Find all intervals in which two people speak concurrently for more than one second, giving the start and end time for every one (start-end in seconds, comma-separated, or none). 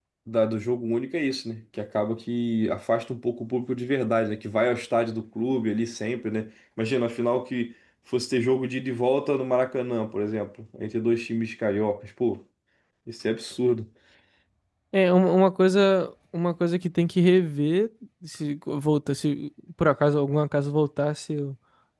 none